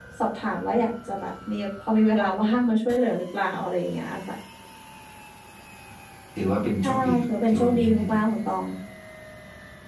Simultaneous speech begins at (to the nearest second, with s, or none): 7 s